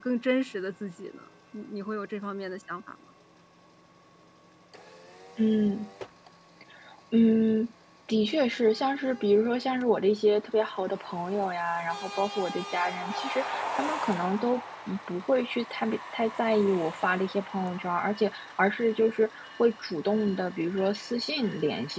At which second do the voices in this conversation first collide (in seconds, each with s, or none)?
none